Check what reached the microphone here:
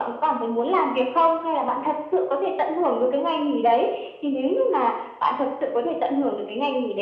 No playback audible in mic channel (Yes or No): No